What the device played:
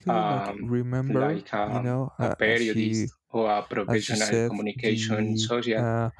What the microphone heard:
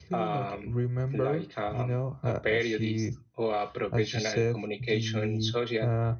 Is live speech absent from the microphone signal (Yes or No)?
Yes